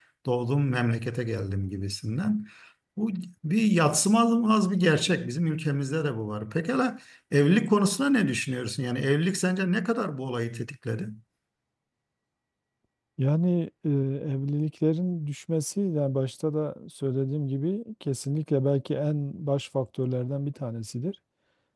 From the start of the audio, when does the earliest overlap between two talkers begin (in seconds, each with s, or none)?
none